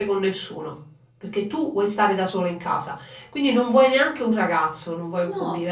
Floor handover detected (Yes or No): No